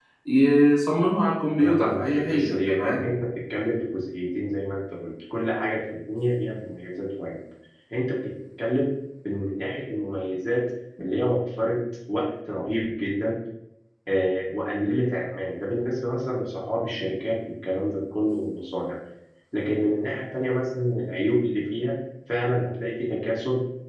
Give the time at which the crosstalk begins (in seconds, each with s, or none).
1.6 s